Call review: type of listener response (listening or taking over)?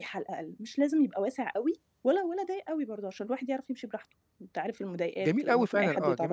taking over